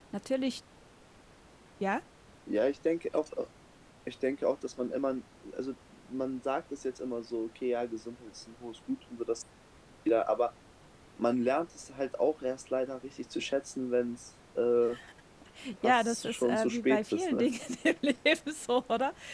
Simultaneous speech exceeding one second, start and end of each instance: 15.8-17.4

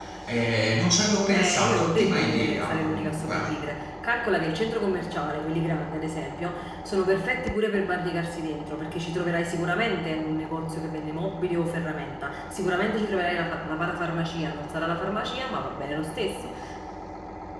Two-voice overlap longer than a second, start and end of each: 1.3-3.5

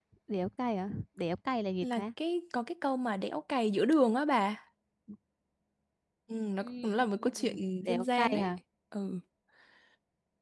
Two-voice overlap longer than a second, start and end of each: 6.6-8.5

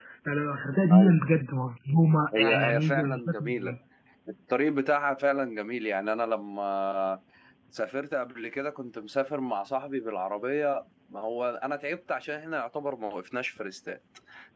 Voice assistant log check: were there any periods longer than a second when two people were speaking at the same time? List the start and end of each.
2.4-3.7

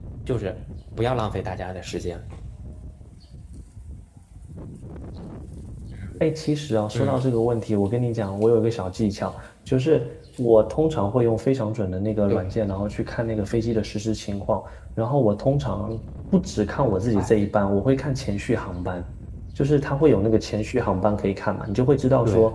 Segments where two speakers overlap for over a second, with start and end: none

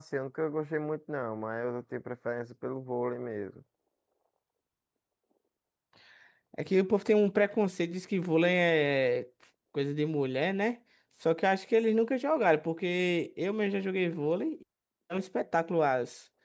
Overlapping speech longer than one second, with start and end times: none

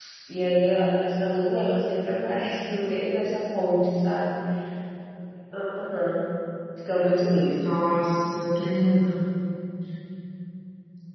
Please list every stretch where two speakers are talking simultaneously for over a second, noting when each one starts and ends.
none

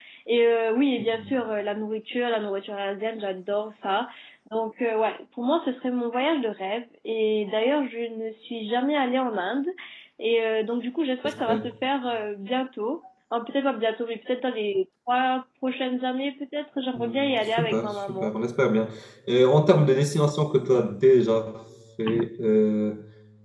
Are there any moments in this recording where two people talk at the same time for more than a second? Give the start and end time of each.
16.9-18.3

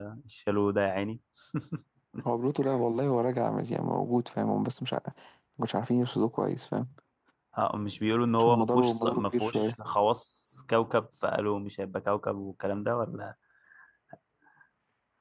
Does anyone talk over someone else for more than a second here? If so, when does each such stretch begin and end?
8.3-9.7

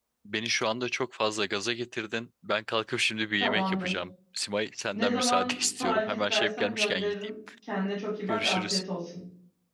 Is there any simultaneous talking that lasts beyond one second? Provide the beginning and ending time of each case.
5.0-7.3

